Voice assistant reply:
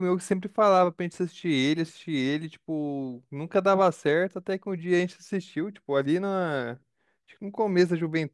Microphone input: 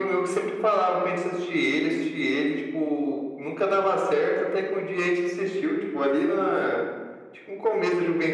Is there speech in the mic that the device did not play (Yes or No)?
No